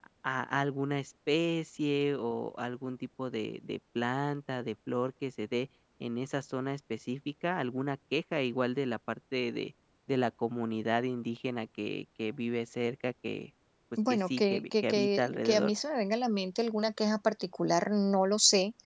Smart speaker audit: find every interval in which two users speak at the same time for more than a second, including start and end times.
14.1-15.7

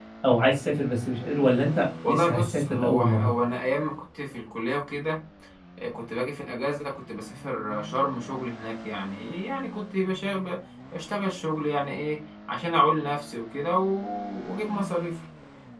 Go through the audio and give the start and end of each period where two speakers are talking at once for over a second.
2.1-3.3

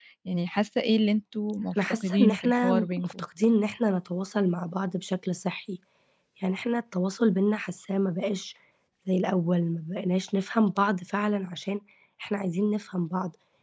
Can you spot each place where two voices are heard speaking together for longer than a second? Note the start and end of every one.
1.9-3.2

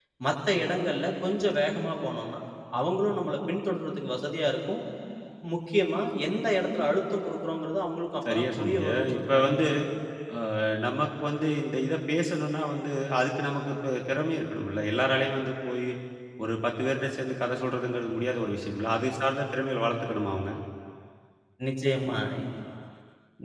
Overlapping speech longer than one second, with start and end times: 8.3-9.6

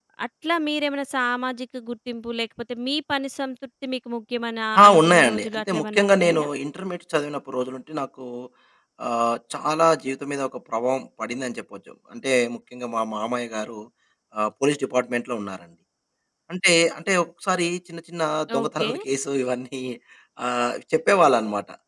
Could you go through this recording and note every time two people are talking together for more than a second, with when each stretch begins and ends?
4.8-6.5

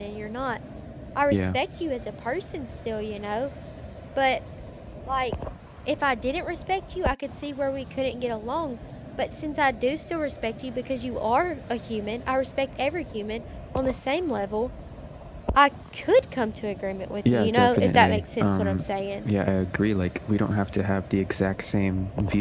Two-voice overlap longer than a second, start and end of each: 17.3-18.8

